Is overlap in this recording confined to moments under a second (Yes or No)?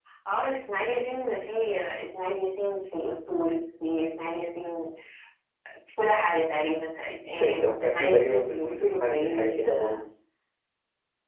No